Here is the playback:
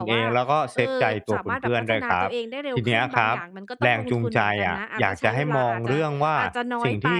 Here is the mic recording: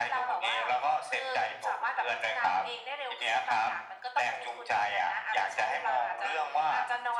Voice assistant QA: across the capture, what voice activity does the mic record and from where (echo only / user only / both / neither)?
echo only